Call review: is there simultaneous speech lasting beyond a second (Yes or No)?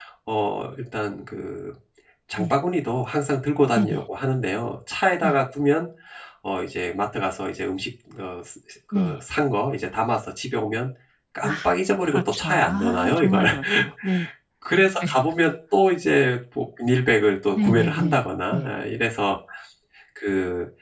Yes